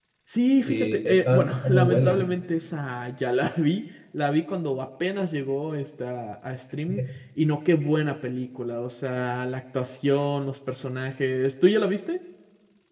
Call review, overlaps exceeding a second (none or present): present